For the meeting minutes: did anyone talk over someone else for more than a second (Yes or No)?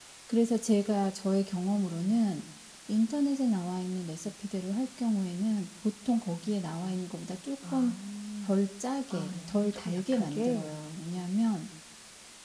Yes